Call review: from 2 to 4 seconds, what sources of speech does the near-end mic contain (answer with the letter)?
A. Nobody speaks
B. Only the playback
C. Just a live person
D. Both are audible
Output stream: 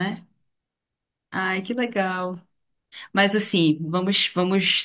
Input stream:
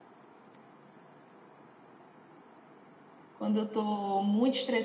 C